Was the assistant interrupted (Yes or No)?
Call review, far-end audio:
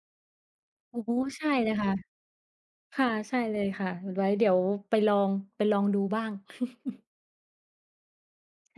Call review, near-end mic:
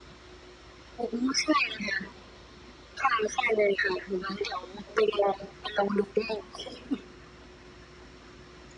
No